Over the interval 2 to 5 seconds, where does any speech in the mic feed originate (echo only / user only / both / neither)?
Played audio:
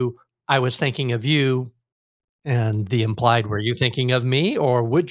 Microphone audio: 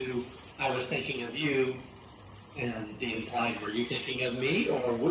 echo only